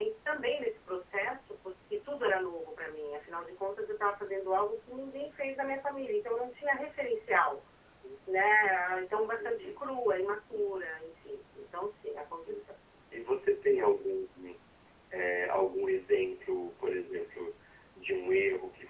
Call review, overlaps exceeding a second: none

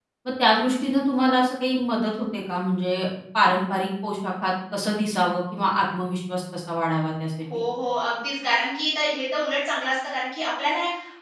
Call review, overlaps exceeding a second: none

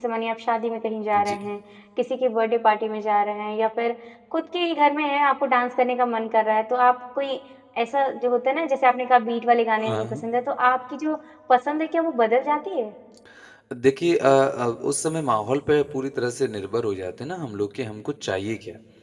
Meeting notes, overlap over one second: none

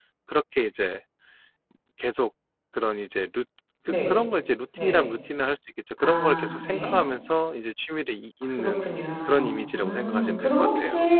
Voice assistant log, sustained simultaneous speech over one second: present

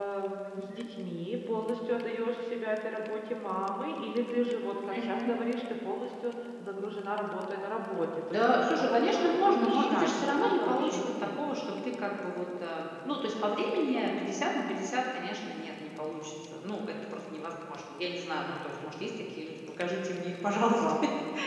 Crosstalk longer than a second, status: present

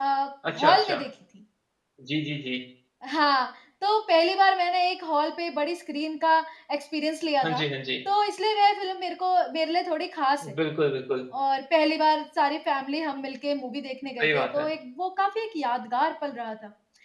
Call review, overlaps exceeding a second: none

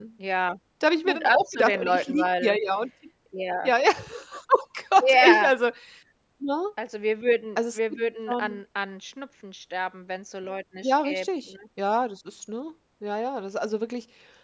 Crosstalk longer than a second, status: present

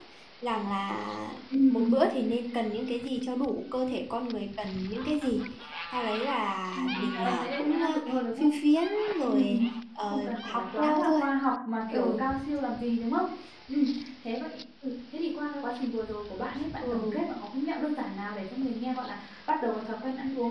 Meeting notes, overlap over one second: present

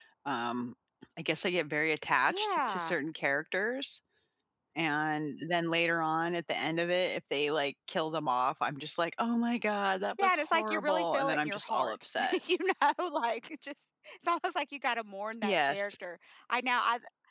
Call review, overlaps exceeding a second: present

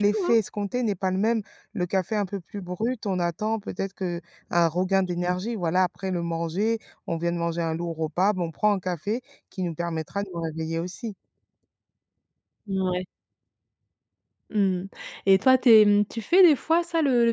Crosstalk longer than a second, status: none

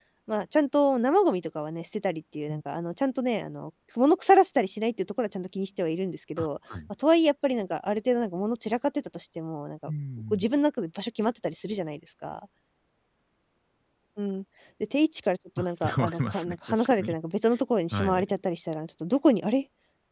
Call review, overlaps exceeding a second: present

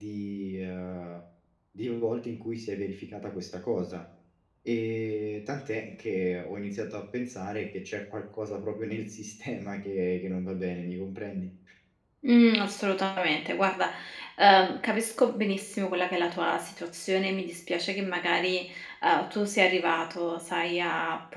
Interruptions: none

